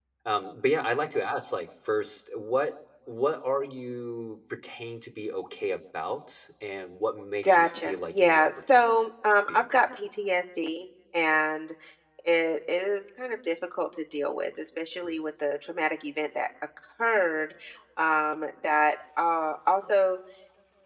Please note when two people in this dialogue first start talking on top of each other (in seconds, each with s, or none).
7.4 s